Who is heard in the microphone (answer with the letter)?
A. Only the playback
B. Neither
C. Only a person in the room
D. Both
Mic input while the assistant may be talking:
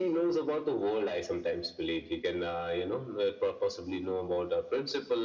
A